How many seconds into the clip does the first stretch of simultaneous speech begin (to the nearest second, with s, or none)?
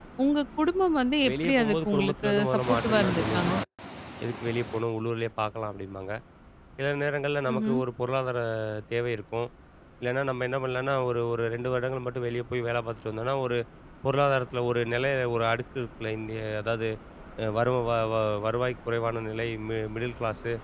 1 s